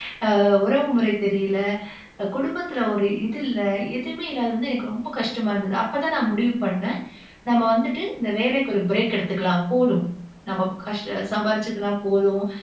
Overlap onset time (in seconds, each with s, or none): none